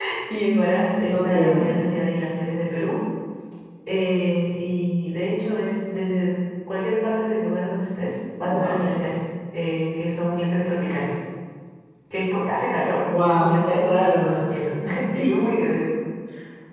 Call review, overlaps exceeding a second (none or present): present